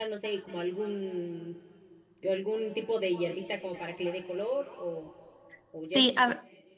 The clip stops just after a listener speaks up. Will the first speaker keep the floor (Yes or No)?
No